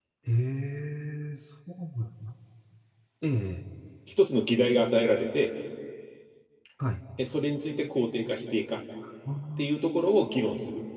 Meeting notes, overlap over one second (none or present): none